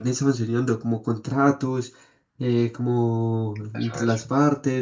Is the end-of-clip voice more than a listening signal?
No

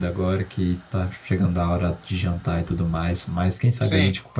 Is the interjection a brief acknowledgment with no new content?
Yes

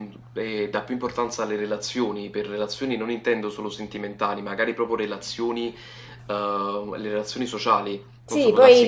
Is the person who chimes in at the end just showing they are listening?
No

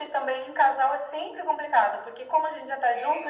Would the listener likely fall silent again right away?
Yes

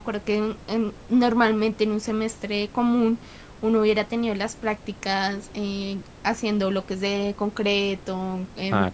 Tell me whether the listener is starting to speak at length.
No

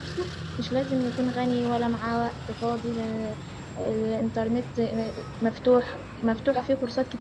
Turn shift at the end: No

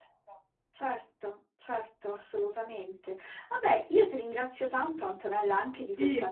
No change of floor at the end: No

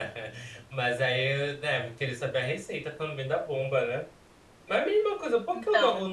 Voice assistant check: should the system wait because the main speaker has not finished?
Yes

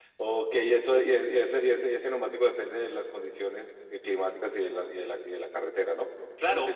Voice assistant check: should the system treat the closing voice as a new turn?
Yes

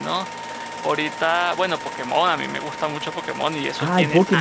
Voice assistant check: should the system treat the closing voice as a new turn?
Yes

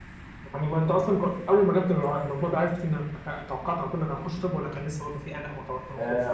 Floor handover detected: Yes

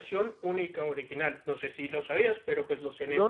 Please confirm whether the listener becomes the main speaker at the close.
Yes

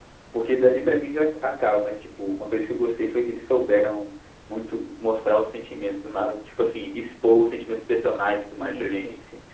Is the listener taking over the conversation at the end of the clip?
Yes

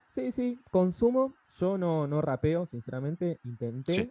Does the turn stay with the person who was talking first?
Yes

